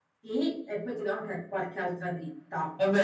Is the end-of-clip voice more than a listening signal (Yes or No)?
Yes